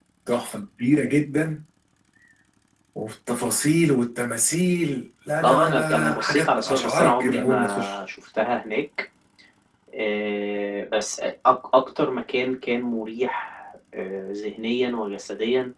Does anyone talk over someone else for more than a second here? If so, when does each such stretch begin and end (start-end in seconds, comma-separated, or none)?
5.4-8.0